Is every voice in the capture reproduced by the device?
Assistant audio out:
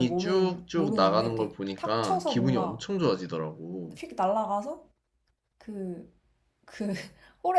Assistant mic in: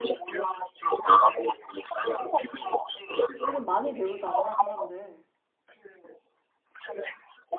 No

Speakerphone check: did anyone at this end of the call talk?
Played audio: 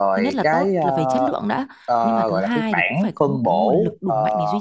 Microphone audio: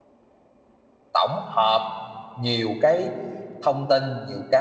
Yes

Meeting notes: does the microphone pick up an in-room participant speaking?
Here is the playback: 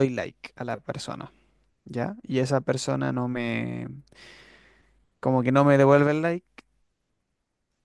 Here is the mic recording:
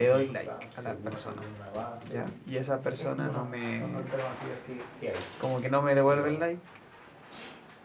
Yes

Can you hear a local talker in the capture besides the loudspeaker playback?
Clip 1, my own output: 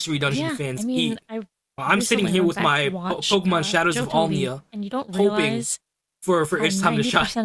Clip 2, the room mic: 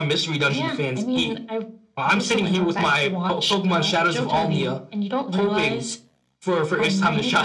No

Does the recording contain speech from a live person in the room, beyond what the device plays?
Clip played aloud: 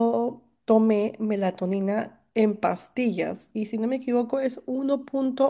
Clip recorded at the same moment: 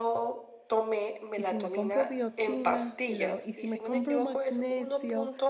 Yes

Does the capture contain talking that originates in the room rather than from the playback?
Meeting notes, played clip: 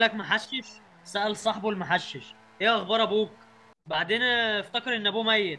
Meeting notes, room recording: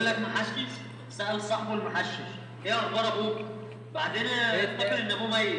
Yes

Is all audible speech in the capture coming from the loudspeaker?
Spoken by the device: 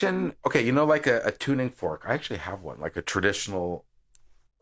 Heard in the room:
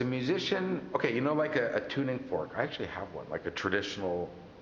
Yes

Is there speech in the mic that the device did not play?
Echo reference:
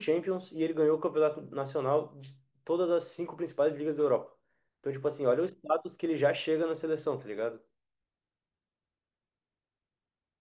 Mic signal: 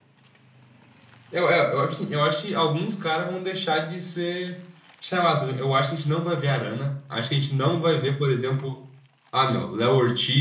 Yes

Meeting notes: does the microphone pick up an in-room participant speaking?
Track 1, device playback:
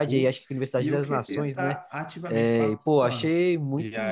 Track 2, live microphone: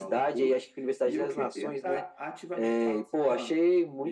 No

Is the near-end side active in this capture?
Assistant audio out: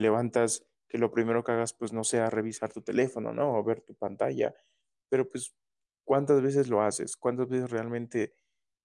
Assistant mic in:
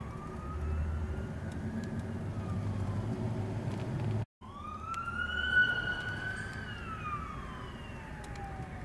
No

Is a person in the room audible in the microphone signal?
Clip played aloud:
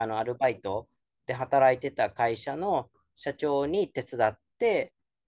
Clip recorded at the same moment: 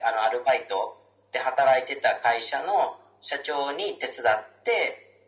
No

